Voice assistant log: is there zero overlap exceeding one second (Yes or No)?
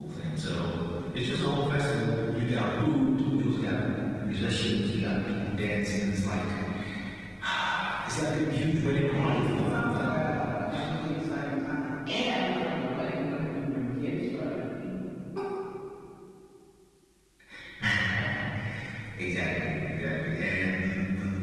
No